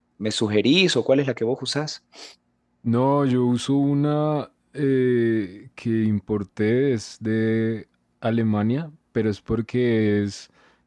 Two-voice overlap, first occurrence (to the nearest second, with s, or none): none